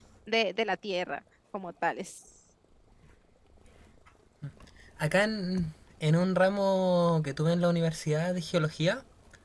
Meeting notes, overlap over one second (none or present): none